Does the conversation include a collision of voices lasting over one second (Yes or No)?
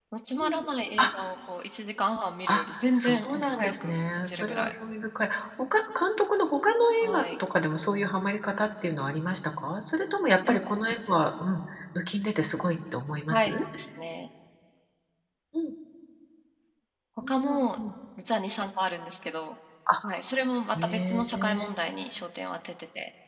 Yes